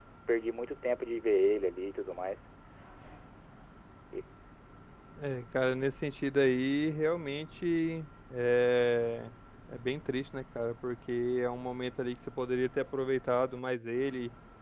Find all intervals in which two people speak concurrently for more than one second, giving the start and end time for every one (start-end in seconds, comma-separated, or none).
none